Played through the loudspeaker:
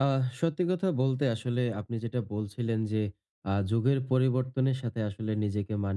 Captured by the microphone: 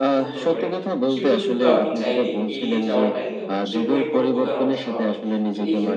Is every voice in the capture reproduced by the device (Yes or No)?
No